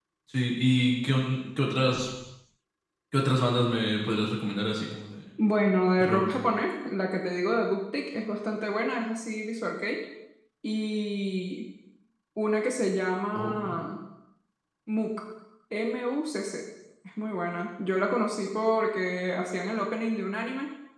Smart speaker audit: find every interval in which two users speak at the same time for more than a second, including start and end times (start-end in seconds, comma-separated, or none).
none